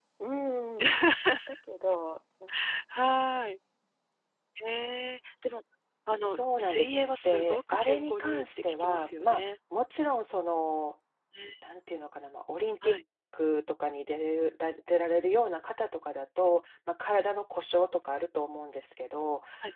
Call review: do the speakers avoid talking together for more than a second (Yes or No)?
No